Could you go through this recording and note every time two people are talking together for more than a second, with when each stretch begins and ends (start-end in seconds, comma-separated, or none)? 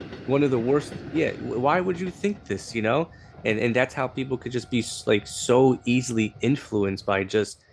none